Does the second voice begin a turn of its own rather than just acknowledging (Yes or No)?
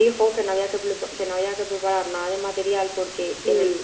No